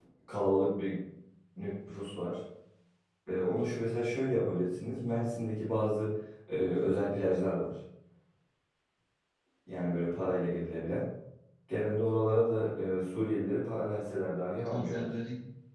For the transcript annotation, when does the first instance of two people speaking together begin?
13.8 s

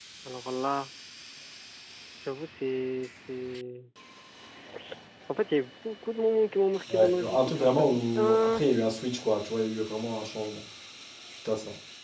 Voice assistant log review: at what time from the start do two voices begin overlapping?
6.9 s

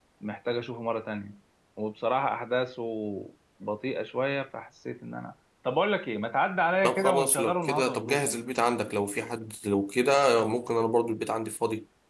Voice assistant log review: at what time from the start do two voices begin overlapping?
6.8 s

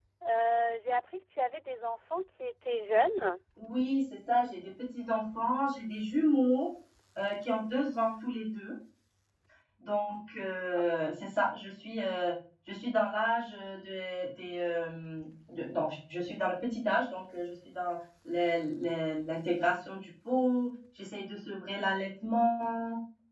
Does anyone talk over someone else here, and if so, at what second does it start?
none

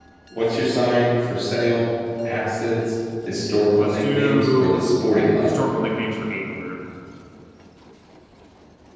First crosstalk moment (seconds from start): 3.8 s

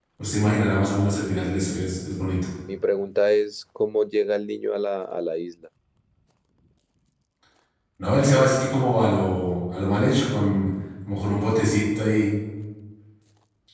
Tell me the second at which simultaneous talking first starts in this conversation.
none

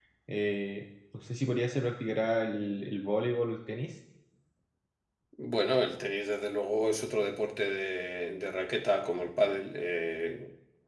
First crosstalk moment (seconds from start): none

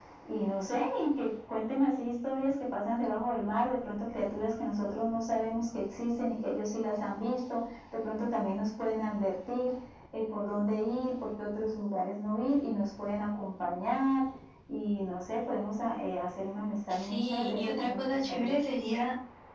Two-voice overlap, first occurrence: 16.9 s

